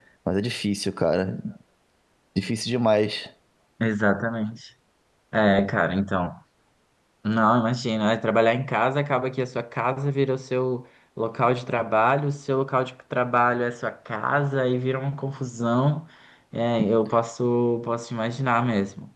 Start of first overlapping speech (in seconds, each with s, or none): none